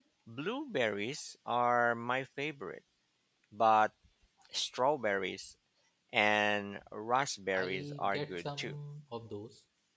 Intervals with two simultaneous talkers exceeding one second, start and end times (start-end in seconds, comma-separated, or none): 7.5-8.8